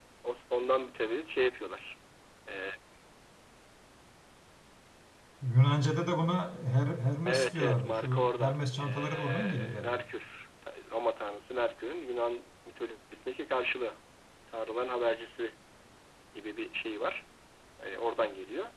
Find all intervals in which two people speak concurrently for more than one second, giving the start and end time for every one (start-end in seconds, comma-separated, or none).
7.2-10.0